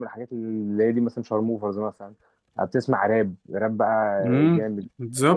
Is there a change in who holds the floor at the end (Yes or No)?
Yes